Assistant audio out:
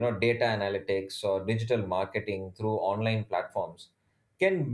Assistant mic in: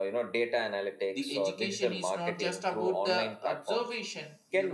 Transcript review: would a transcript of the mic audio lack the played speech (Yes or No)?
No